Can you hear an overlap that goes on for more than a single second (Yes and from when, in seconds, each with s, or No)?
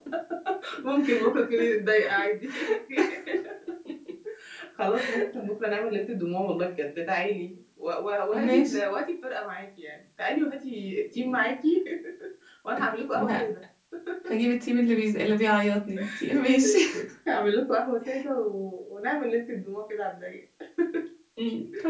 No